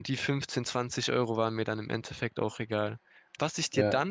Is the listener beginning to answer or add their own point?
No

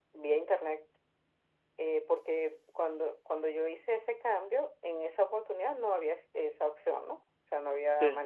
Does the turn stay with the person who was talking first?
Yes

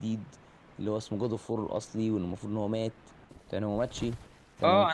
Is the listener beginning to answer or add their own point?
Yes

